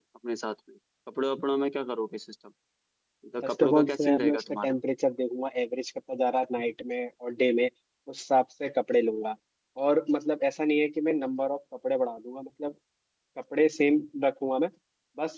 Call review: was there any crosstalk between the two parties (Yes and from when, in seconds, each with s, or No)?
Yes, from 3.4 s